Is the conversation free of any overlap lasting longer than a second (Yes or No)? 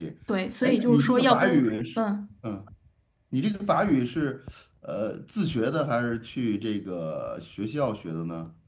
No